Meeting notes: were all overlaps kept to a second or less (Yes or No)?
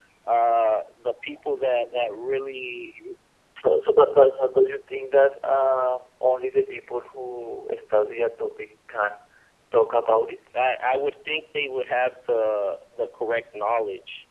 Yes